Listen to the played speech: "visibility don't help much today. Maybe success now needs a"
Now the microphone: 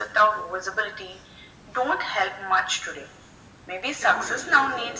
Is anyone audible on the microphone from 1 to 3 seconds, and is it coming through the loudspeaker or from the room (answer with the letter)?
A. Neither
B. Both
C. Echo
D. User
C